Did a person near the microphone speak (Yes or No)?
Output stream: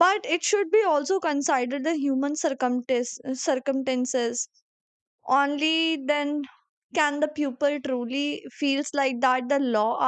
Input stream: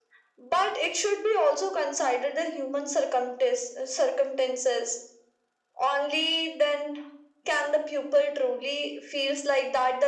No